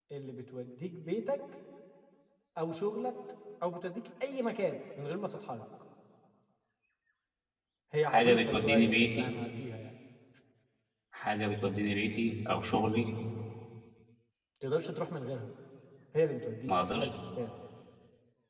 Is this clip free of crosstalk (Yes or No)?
No